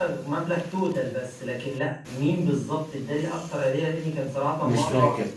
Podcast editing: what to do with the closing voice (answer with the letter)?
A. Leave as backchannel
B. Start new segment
A